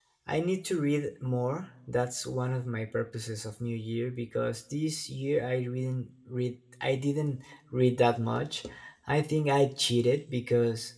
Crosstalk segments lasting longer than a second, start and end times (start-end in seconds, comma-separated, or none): none